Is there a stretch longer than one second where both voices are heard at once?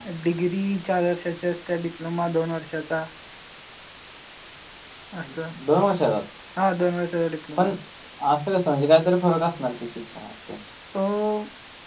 No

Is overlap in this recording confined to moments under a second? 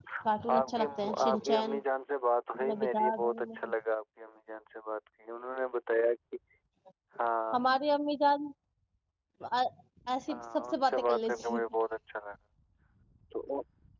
No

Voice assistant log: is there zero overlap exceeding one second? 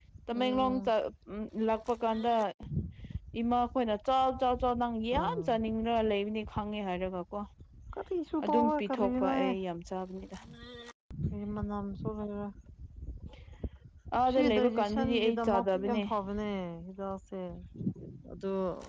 No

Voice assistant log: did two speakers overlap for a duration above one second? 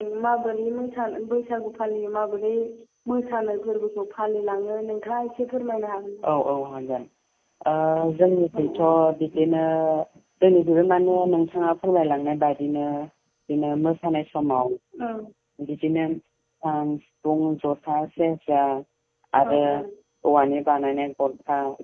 No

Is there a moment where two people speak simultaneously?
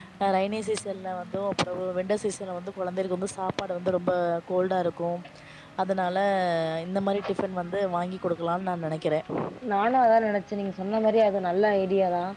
No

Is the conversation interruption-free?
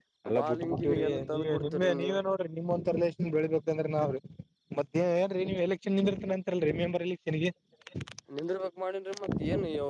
No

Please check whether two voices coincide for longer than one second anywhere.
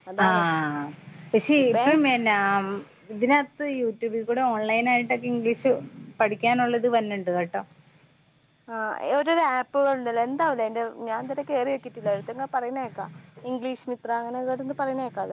No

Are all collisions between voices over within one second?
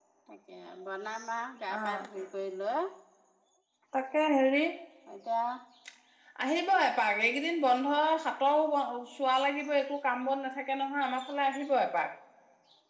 Yes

